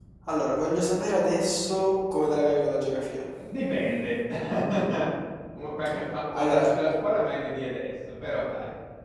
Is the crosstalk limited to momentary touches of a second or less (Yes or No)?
Yes